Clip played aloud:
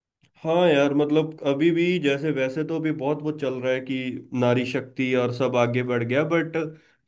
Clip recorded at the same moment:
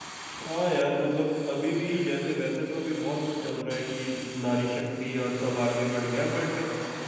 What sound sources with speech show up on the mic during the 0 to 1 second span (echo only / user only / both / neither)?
echo only